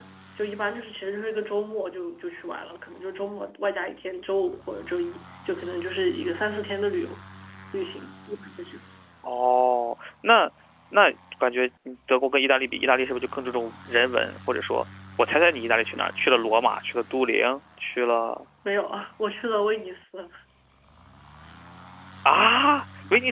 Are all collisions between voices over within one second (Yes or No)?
Yes